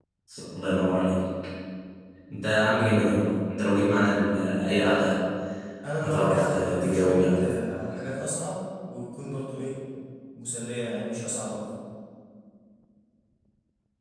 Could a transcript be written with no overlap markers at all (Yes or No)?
No